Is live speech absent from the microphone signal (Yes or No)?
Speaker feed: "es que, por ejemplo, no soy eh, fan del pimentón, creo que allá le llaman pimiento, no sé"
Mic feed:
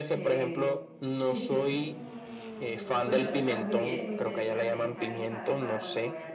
No